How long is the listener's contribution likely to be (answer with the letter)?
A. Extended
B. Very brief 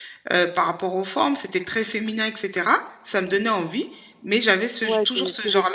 A